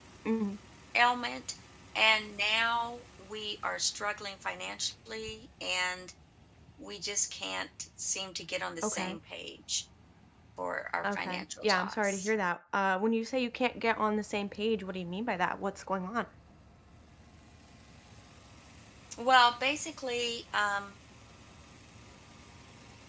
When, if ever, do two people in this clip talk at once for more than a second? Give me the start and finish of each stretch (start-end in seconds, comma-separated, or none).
11.0-12.3